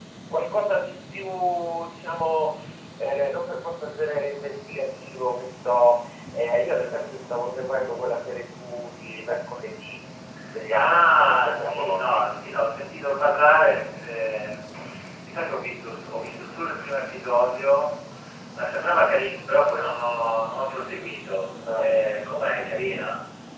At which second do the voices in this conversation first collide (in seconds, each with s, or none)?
10.7 s